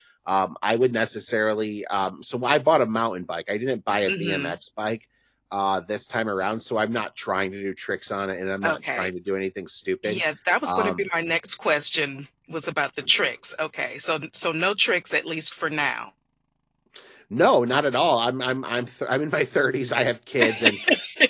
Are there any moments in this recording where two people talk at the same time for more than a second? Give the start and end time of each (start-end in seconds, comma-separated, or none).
none